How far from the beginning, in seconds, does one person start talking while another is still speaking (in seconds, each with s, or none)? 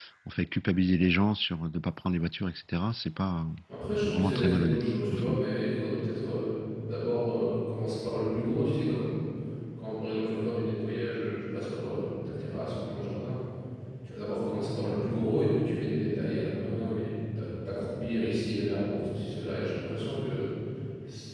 4.0 s